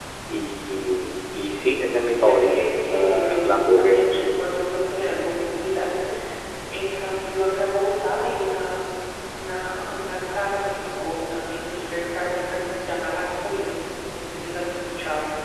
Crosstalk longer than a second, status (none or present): present